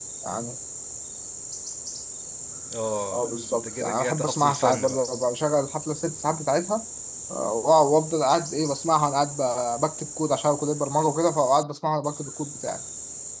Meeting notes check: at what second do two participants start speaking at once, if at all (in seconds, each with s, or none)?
3.1 s